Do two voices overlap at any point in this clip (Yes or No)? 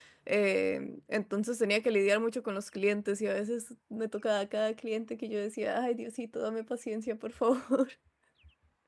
No